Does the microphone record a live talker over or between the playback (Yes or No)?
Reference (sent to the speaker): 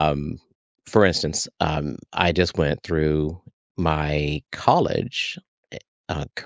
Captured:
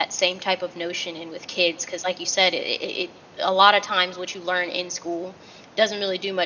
Yes